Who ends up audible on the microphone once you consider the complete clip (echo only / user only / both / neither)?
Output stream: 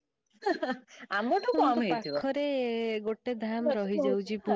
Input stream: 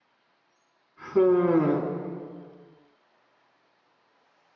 user only